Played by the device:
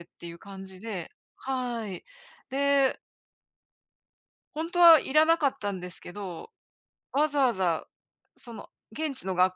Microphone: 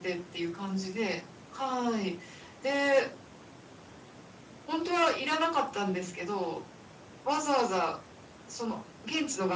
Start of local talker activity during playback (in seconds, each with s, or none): none